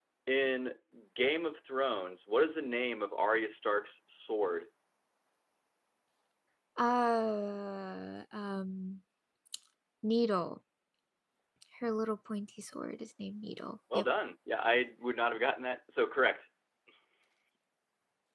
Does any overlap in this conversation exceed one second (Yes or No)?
No